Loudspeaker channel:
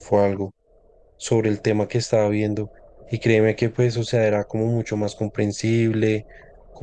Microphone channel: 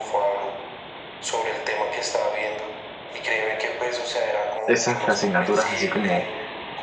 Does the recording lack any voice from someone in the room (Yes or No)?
No